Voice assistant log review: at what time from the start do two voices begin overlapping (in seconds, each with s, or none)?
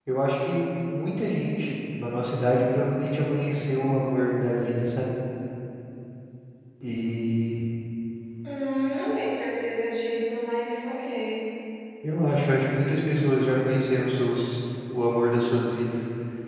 none